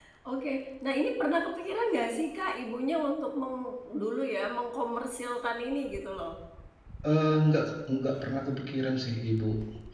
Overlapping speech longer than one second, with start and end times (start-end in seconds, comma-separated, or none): none